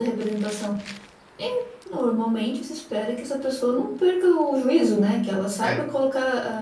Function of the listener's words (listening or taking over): listening